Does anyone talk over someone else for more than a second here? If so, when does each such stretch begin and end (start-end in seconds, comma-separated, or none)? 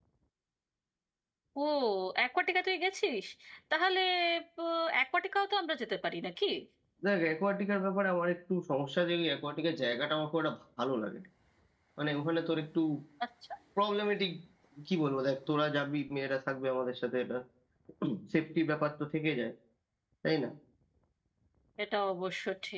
none